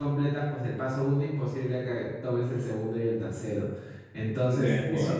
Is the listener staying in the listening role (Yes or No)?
Yes